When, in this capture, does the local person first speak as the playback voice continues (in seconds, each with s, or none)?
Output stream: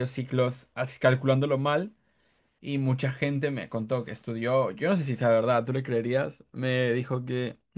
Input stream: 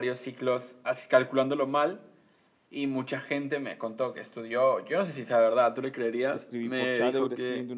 6.3 s